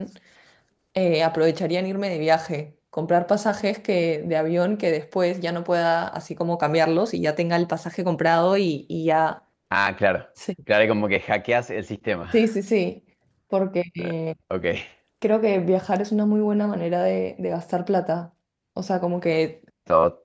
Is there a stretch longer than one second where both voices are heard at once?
No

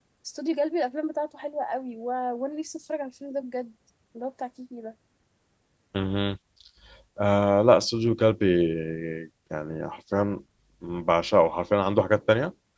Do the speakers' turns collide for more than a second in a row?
No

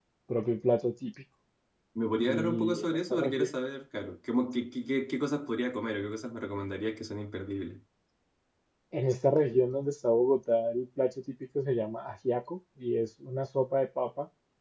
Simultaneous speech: Yes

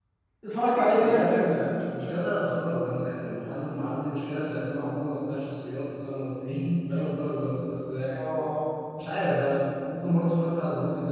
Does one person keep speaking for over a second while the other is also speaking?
No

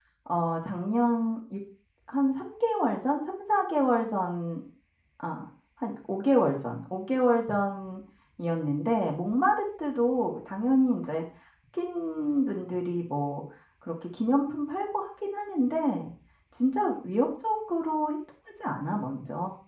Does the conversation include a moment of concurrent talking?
No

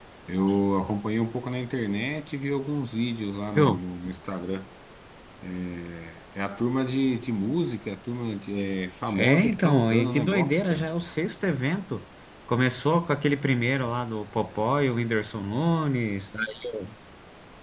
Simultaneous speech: Yes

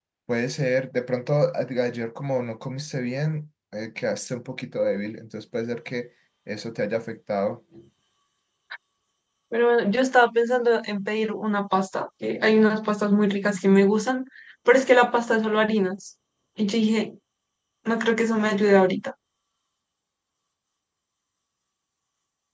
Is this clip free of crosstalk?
Yes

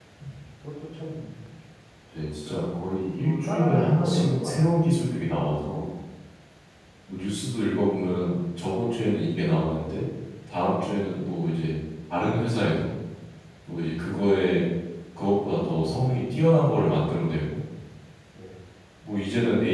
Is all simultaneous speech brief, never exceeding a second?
No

